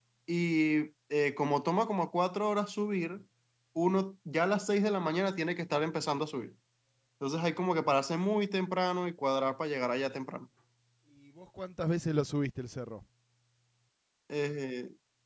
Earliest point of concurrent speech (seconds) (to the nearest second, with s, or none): none